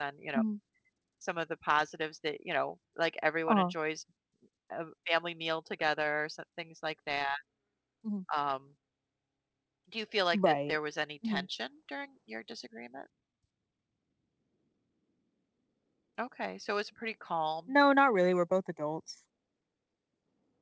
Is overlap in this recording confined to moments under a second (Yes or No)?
Yes